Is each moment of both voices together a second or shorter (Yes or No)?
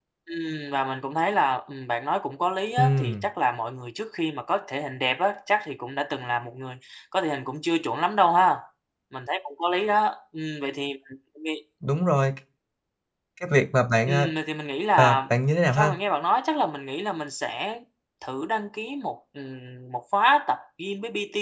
Yes